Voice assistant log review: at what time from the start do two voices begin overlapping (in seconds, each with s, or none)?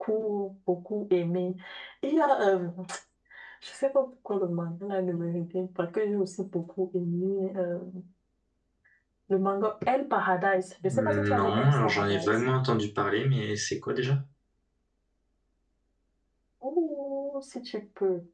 10.8 s